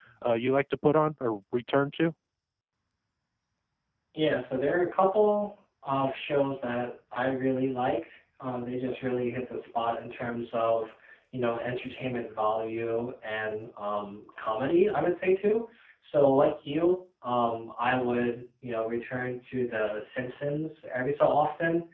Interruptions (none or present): none